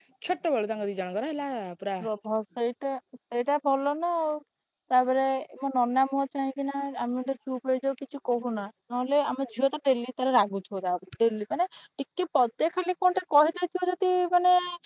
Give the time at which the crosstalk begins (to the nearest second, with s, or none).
none